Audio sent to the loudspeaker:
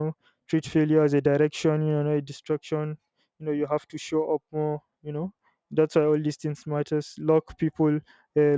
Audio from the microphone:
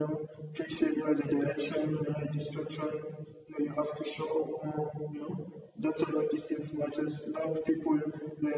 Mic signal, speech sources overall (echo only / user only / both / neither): echo only